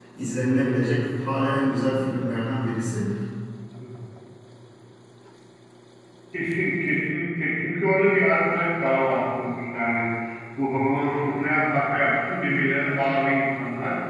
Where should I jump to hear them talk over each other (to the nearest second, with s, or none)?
none